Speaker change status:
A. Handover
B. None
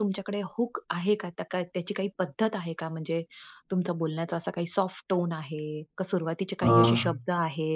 B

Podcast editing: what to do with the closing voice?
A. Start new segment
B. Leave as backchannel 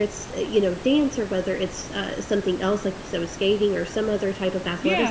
B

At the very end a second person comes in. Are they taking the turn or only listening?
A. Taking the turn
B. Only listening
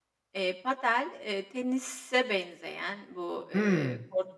B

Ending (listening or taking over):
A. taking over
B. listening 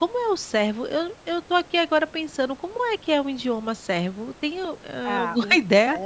A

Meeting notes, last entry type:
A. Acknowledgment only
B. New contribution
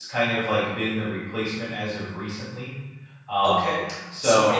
B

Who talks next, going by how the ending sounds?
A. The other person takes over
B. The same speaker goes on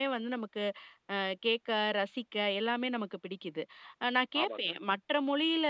B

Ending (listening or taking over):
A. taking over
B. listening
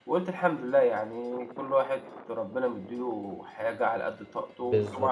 B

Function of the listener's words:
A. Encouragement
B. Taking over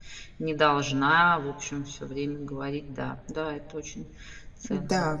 B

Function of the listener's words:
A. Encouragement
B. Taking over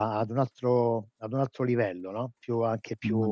A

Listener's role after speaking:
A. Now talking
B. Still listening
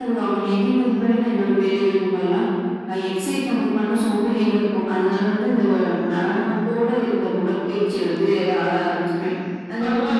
A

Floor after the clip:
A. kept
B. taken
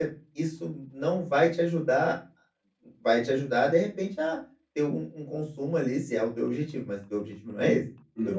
A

